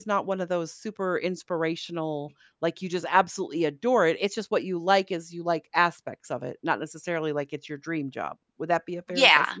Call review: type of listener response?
taking over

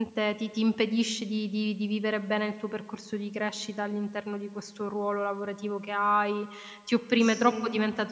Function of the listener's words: listening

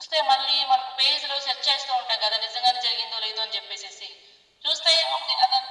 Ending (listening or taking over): listening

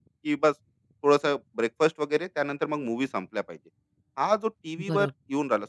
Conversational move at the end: listening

